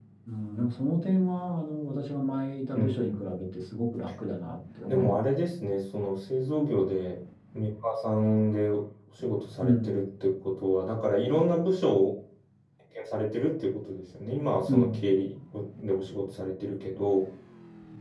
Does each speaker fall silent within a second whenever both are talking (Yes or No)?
Yes